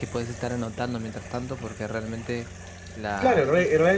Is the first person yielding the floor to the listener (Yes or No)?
Yes